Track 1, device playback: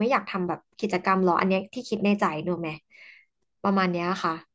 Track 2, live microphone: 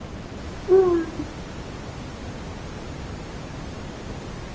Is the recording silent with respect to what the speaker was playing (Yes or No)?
Yes